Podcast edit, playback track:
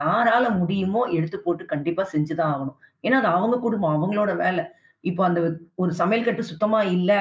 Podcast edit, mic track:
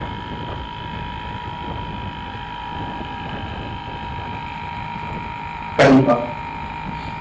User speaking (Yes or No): Yes